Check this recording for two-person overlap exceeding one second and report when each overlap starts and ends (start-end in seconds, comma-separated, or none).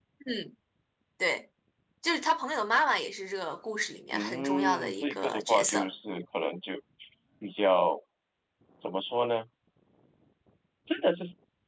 4.1-5.9